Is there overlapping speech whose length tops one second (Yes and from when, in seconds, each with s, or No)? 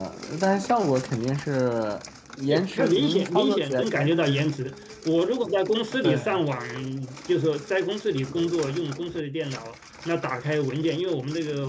Yes, from 2.5 s